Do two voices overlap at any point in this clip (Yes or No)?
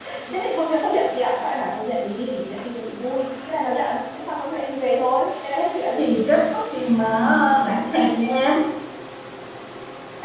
No